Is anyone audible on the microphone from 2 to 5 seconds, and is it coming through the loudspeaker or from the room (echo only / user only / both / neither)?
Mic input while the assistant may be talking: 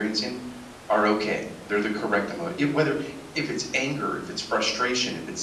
echo only